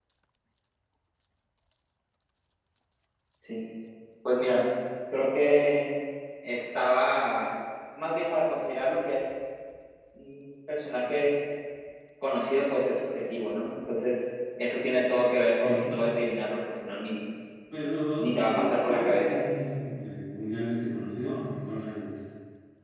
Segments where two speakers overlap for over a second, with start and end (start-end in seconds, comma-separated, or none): 18.2-19.4